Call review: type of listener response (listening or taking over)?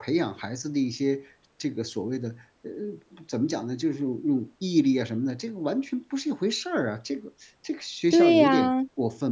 taking over